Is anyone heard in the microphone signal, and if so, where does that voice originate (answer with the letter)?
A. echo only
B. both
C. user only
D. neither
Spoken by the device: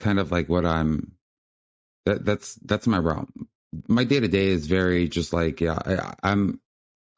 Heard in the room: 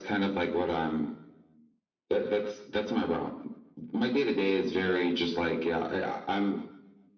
A